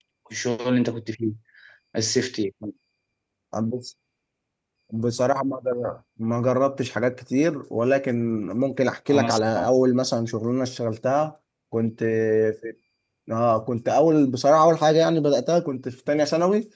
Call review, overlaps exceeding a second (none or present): none